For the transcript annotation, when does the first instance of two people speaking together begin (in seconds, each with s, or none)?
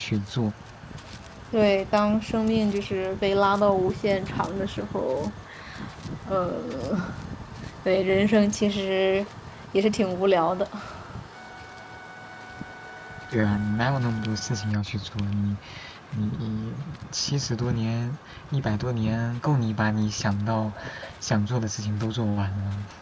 none